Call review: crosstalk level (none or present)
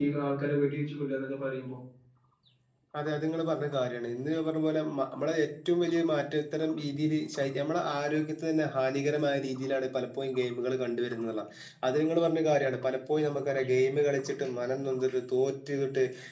none